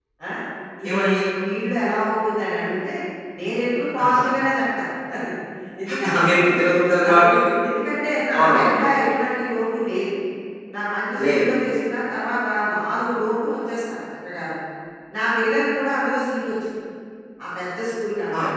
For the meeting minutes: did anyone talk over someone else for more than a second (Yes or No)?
No